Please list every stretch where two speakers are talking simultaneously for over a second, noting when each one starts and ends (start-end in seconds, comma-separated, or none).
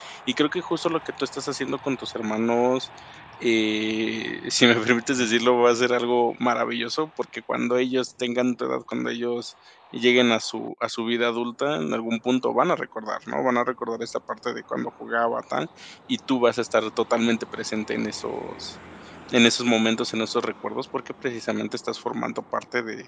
none